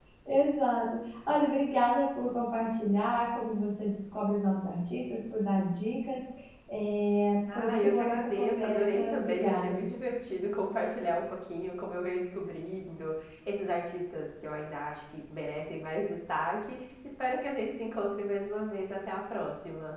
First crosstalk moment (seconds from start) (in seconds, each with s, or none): 7.5 s